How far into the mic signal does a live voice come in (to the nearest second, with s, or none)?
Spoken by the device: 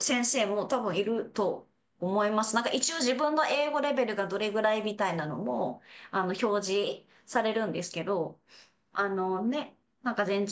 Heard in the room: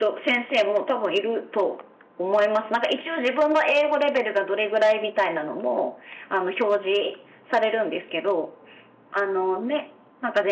none